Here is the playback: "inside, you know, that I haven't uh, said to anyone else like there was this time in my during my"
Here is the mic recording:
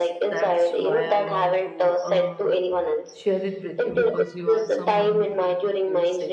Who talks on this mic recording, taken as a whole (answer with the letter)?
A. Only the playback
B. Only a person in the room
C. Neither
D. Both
D